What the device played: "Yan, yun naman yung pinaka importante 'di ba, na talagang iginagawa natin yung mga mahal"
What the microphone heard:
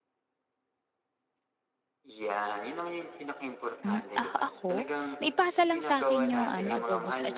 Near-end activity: present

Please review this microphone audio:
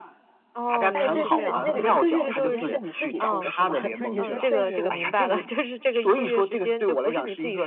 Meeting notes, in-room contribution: present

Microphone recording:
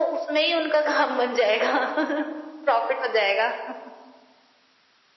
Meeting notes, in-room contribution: none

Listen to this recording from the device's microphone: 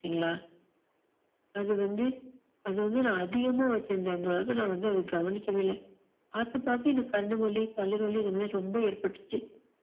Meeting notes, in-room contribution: none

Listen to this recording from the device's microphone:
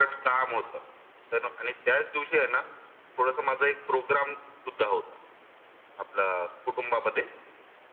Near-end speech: none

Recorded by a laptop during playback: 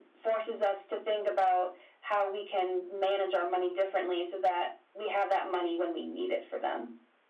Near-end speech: none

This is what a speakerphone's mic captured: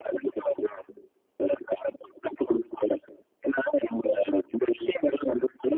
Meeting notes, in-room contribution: none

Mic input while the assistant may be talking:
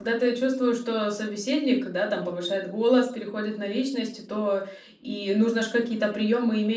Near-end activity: present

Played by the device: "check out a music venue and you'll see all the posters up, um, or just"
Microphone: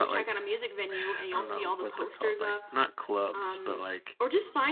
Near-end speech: present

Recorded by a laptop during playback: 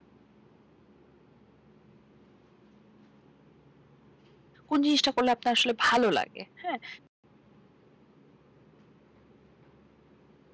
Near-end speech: present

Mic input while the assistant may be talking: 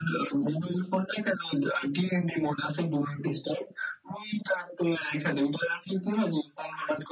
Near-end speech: none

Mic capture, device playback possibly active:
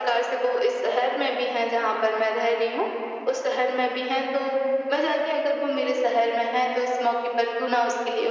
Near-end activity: none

